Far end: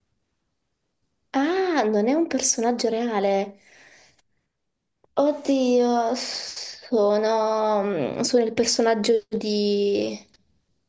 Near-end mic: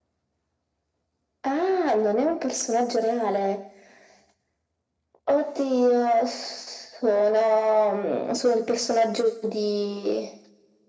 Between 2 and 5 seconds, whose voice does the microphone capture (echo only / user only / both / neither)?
echo only